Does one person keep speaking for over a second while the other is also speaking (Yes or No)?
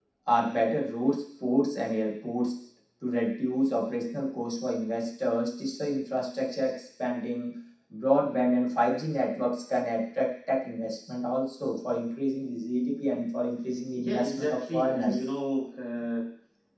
Yes